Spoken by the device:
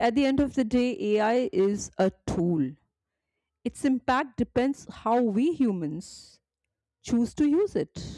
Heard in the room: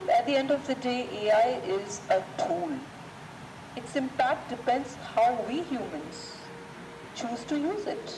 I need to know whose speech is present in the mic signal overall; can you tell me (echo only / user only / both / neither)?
echo only